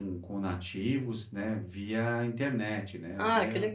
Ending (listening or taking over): taking over